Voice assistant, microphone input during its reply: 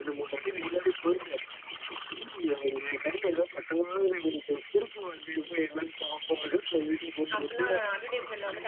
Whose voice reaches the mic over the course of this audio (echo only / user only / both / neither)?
both